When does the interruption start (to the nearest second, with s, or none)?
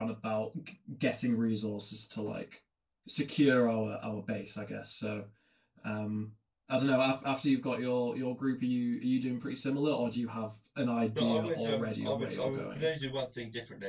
11 s